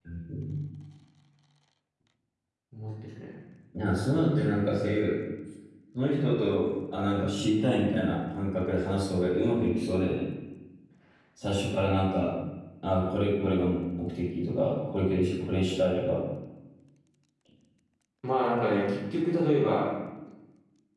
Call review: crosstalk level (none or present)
none